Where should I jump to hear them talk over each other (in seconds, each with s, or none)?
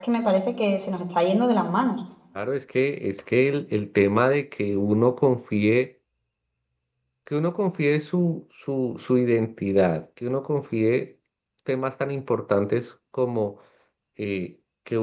none